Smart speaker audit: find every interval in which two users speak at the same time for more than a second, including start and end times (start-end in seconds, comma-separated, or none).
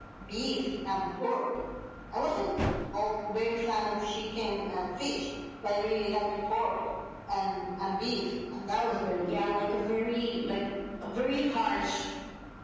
none